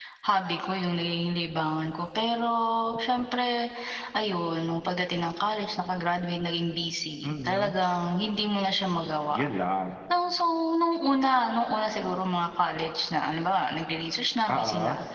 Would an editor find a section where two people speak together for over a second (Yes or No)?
No